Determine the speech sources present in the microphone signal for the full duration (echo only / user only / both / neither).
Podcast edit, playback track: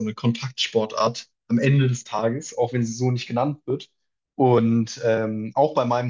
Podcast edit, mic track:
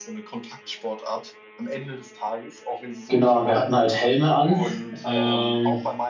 both